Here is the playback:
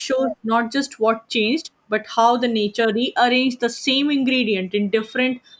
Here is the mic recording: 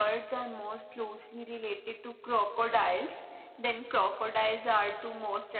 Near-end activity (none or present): present